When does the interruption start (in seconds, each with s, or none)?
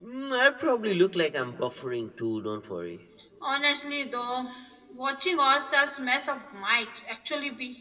none